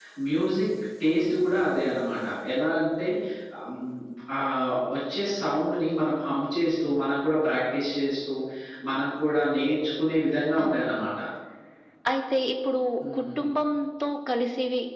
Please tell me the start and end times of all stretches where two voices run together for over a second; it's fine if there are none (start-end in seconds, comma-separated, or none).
none